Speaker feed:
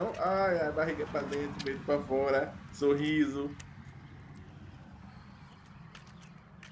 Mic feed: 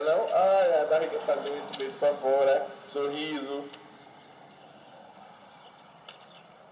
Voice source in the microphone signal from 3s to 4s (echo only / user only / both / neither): echo only